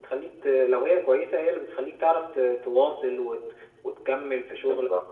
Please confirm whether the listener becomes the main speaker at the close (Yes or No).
No